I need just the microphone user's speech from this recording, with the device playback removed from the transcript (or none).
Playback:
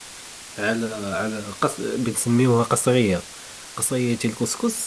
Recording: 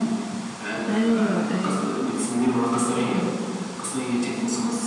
ايوه ايوه